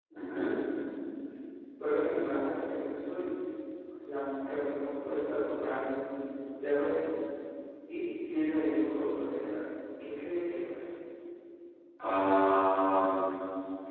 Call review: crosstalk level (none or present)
none